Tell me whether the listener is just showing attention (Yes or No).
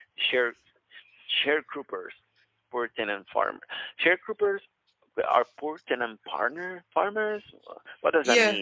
No